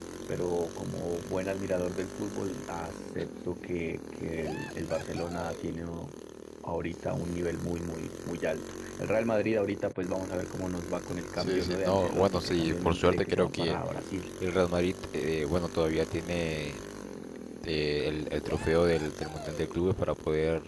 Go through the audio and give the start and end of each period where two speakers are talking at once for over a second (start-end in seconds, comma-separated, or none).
11.3-13.8